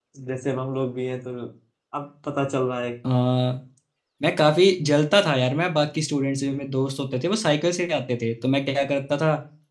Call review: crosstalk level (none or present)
none